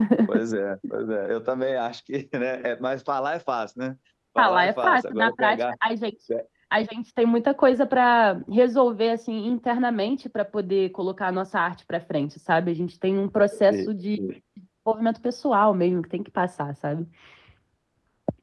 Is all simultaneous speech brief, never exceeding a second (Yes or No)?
No